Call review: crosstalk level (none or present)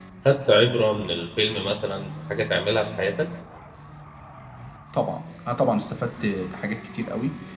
none